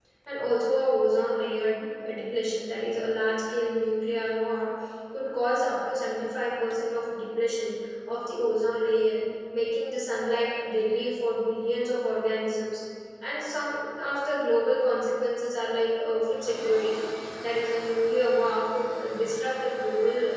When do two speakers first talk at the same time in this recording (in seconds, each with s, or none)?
none